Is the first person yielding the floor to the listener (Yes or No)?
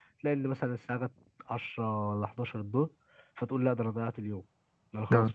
No